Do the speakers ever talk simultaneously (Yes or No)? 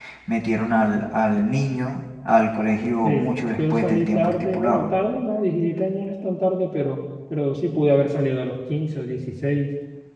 Yes